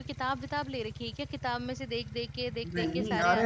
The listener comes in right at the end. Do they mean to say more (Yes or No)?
Yes